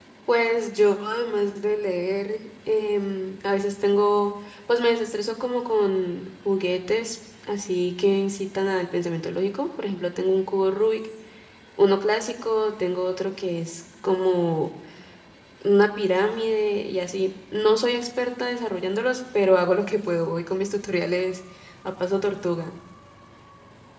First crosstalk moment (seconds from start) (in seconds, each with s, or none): none